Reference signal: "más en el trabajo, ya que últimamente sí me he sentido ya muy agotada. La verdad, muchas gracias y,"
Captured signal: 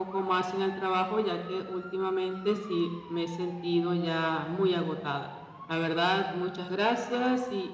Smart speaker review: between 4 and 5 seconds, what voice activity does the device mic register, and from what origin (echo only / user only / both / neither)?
echo only